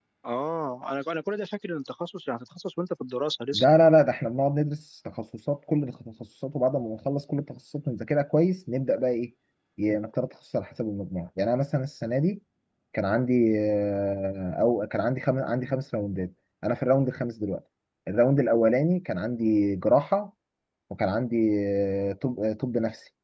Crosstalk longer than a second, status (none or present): none